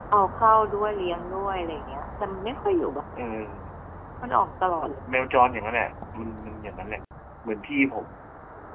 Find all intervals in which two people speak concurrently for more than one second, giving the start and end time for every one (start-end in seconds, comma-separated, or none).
none